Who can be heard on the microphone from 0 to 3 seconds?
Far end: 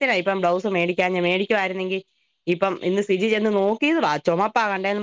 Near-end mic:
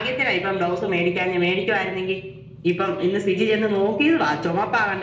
echo only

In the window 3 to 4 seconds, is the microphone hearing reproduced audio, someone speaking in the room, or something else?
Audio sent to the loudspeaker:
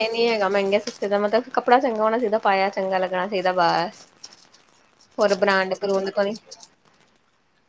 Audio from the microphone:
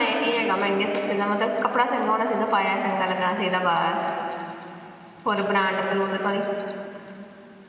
echo only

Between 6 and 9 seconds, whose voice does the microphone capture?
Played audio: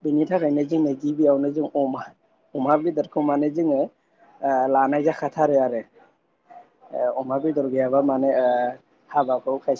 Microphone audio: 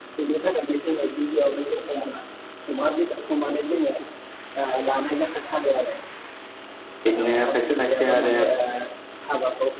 both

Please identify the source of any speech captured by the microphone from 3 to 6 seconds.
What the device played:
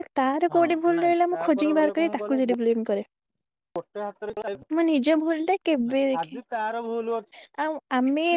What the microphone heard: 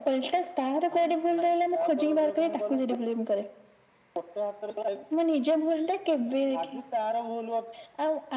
echo only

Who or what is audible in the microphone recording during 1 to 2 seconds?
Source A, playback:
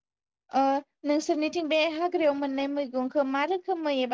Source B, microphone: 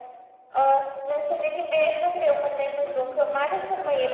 echo only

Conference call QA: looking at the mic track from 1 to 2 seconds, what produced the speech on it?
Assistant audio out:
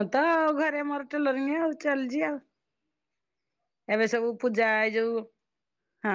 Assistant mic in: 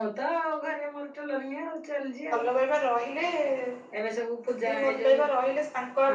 both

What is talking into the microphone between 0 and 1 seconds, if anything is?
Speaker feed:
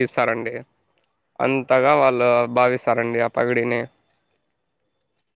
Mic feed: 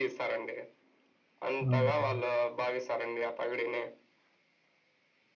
echo only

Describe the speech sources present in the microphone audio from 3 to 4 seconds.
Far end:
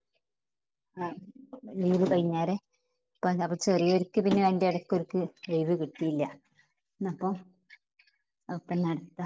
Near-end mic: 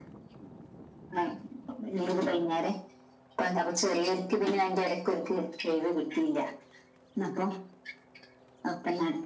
echo only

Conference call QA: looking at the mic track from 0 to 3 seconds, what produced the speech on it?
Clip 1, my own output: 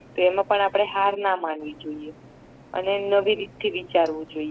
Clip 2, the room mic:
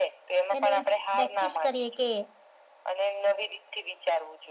both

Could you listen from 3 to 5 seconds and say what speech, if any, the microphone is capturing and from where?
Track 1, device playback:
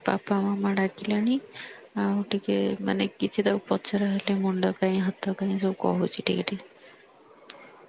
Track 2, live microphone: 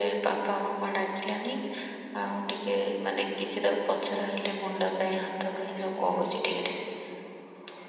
echo only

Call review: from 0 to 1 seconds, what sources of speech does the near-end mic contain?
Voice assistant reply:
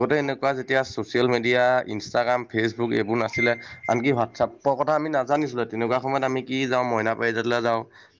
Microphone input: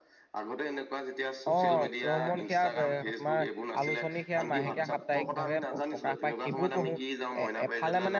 echo only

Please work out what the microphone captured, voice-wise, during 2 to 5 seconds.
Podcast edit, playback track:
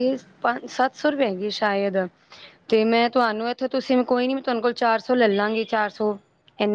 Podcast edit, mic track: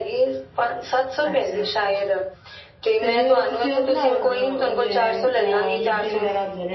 both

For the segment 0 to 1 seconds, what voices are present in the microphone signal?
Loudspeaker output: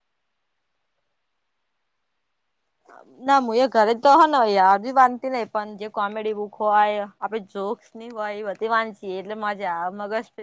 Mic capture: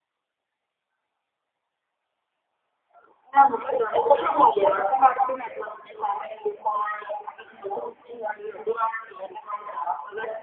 neither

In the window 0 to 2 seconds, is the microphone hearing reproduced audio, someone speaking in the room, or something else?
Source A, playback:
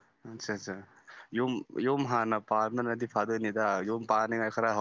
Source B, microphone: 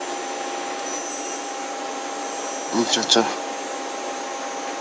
neither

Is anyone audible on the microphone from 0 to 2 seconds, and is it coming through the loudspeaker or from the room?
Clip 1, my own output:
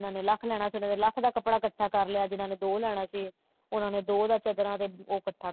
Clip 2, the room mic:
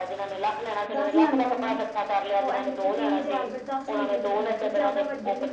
both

